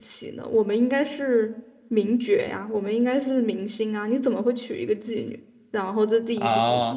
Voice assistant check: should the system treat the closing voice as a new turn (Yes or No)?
No